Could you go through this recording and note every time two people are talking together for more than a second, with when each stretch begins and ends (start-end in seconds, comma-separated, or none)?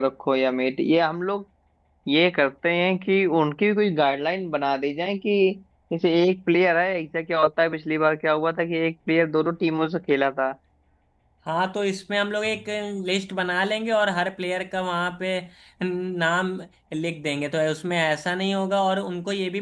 none